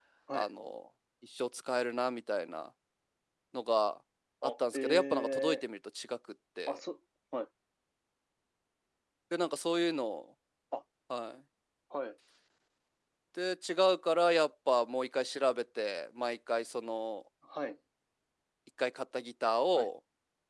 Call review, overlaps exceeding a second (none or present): present